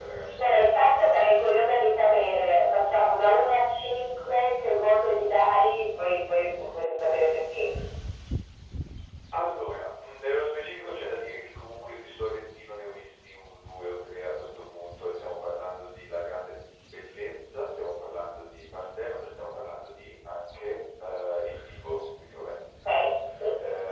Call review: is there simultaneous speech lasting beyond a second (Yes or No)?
Yes